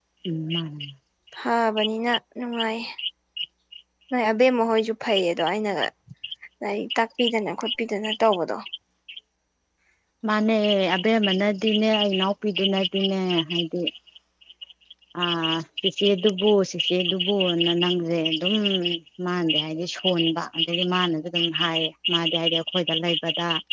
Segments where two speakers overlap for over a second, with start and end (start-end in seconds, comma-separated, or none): none